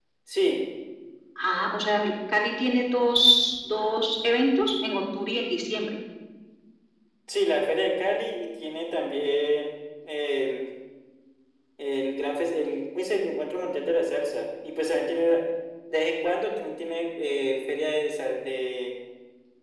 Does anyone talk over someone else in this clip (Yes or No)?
No